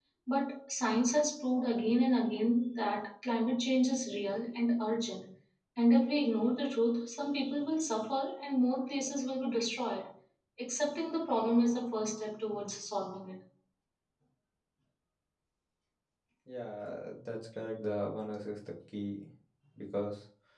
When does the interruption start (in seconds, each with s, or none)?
none